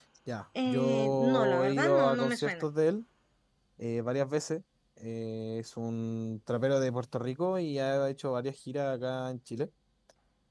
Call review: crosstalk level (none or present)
present